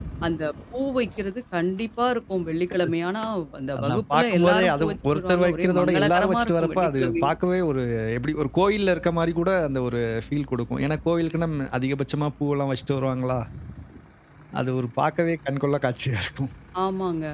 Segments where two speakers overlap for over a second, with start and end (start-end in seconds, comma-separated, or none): 3.8-7.2